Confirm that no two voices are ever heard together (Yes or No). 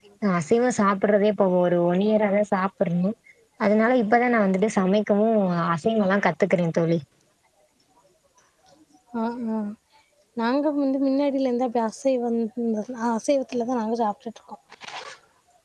Yes